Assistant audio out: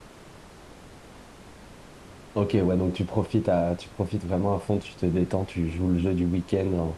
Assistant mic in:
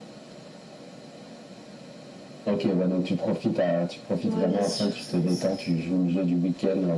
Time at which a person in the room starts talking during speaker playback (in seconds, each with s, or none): 4.2 s